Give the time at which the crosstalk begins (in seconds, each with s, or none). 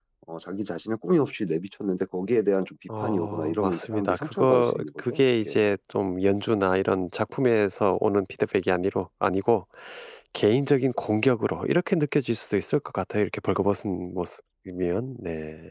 2.9 s